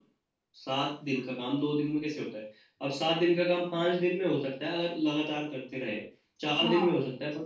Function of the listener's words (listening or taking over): listening